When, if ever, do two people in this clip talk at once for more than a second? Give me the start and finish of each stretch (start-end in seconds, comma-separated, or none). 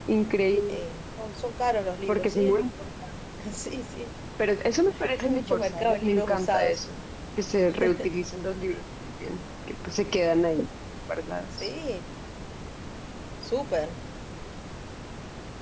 5.2-6.8